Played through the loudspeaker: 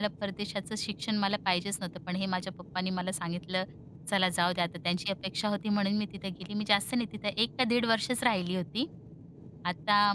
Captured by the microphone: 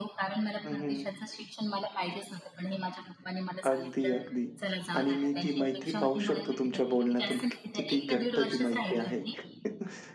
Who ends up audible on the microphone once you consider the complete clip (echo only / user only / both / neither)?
both